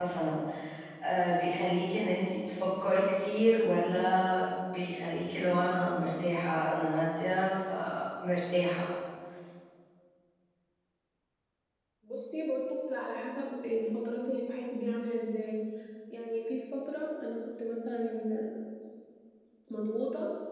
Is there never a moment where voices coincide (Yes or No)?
Yes